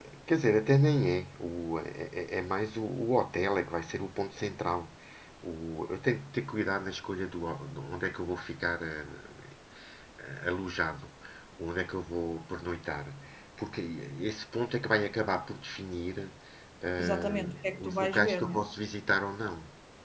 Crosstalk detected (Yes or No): Yes